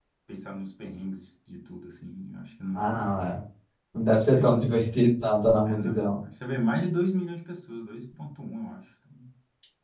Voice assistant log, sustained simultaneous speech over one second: none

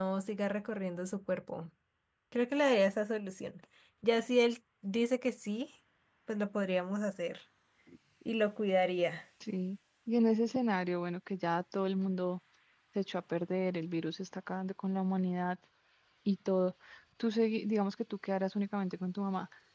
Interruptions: none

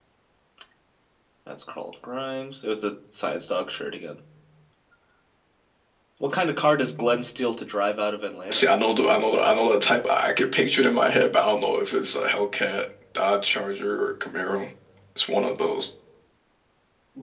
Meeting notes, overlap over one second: none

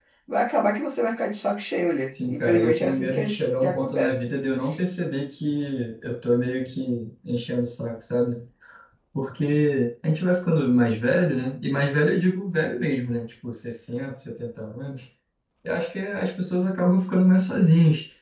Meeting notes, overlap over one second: present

